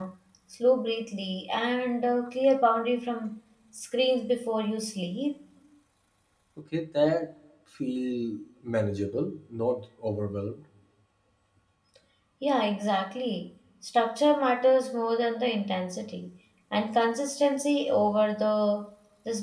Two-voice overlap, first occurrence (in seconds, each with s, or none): none